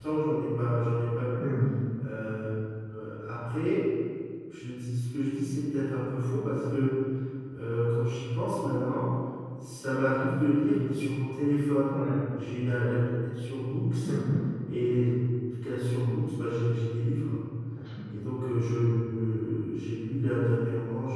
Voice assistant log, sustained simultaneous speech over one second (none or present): none